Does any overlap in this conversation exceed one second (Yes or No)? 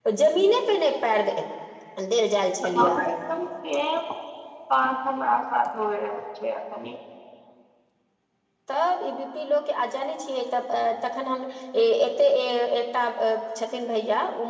No